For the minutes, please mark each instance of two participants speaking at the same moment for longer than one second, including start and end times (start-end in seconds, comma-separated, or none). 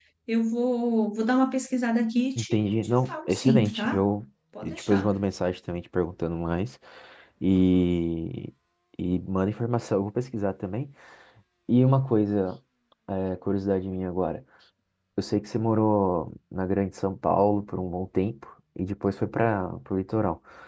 2.4-4.0